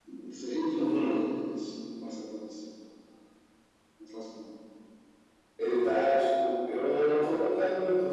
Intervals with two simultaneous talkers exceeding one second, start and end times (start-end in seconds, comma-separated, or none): none